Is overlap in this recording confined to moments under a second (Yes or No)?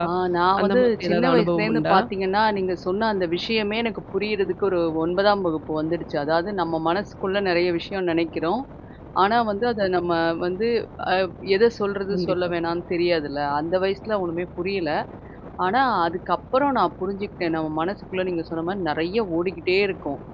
No